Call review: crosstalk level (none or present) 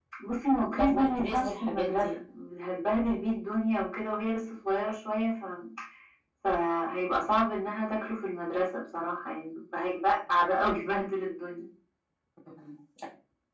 present